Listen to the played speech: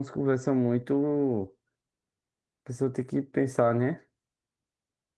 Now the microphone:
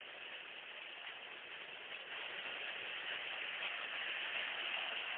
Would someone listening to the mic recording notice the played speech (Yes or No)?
No